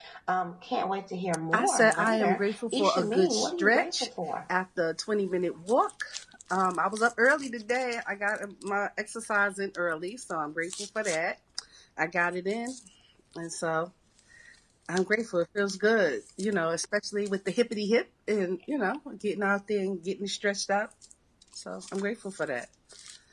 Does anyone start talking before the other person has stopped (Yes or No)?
Yes